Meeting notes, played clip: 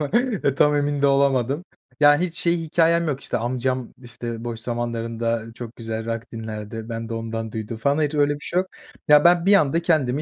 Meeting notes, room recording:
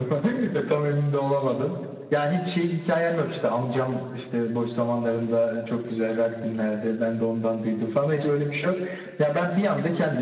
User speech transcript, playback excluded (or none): none